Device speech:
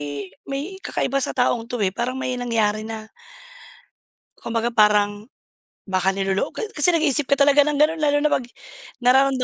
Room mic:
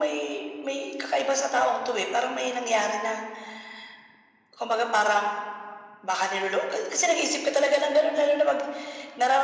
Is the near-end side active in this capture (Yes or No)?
No